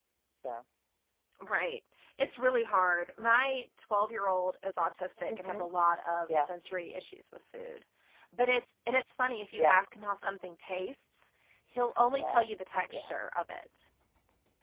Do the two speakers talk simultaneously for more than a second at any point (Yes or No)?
No